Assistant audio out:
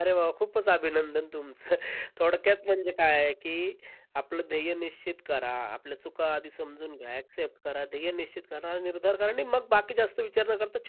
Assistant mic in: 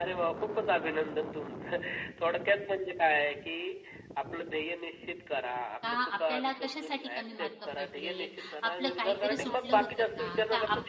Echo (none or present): present